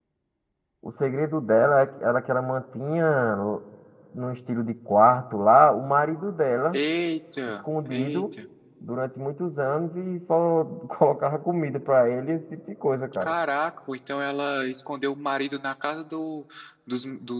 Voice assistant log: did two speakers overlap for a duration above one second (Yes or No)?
No